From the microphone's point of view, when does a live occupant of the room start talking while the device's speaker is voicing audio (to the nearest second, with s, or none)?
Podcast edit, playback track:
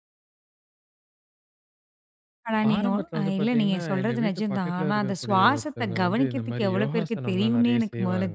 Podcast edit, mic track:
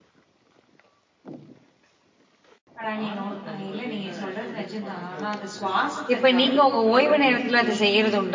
6 s